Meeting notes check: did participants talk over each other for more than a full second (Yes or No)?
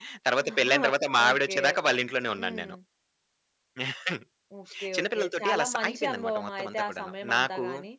Yes